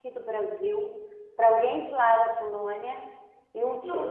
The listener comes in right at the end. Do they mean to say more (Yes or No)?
No